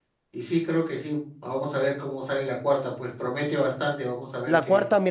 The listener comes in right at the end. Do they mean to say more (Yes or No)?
Yes